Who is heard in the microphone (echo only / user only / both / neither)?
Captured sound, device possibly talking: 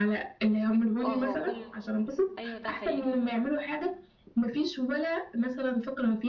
both